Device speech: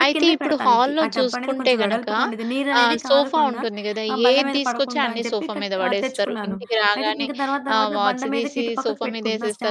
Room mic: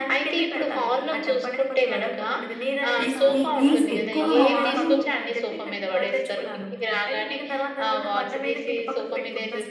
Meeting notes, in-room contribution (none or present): present